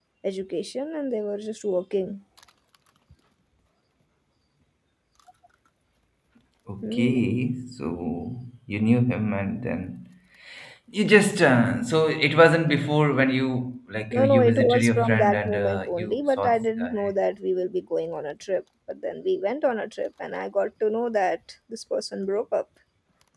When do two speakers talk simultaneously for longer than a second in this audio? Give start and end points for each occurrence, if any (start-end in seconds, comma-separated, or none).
14.1-17.1